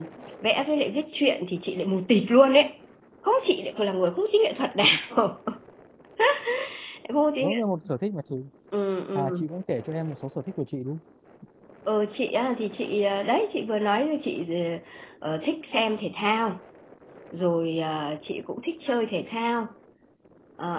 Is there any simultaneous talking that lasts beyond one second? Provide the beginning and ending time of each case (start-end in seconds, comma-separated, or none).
none